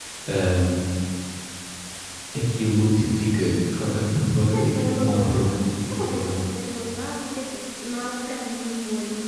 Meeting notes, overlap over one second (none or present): present